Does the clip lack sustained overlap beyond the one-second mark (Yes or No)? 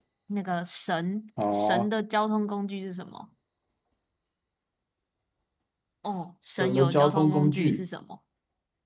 No